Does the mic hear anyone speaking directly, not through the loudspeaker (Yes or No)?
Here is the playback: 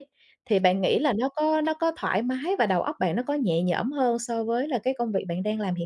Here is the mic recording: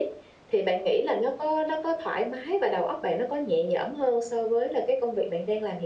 No